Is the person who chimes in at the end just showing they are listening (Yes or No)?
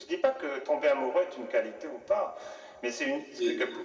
Yes